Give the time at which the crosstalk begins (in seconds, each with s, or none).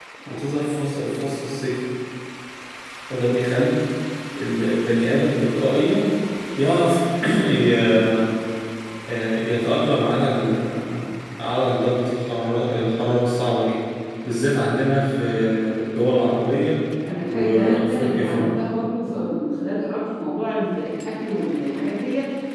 17.3 s